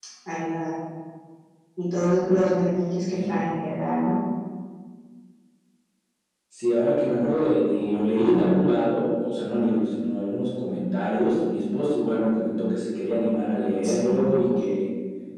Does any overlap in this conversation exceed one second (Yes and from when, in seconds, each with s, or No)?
No